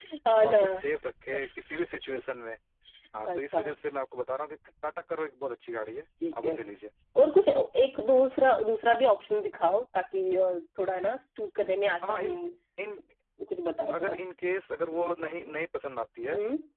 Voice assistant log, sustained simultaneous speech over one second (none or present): none